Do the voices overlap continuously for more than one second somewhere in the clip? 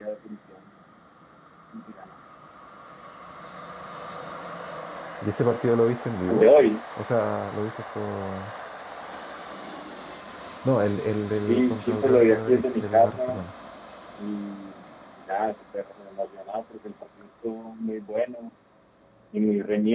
Yes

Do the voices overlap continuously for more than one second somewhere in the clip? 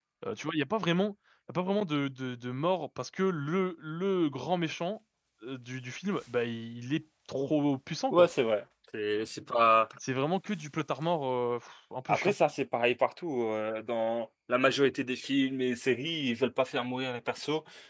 No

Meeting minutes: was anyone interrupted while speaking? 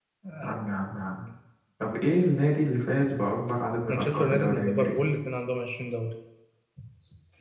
Yes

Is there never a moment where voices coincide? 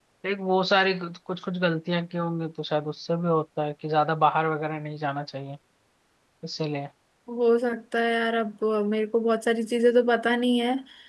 Yes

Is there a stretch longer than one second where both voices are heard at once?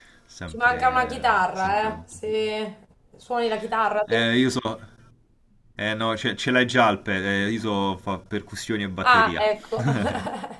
Yes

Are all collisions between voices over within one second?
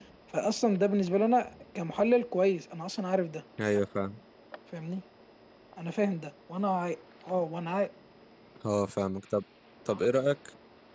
Yes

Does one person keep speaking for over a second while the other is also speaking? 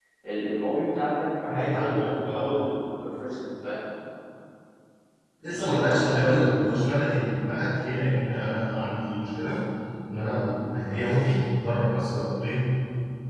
Yes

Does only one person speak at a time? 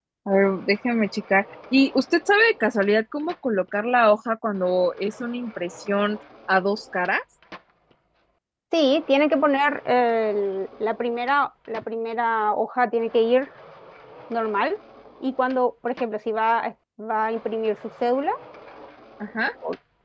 Yes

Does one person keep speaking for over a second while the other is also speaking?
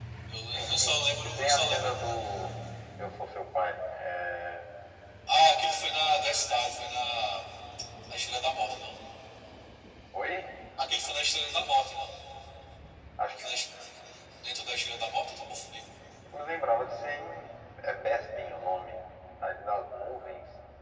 Yes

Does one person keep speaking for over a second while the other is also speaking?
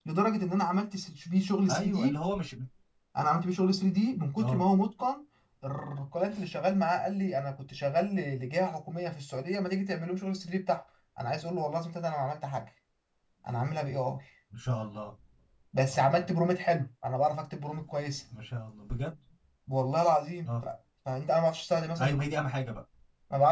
No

